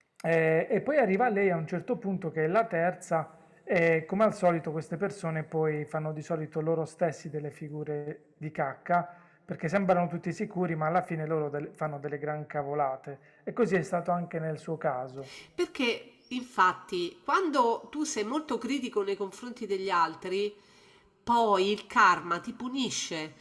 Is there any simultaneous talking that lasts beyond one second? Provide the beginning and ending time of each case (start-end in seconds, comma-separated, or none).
none